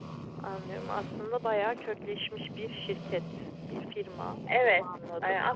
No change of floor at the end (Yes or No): No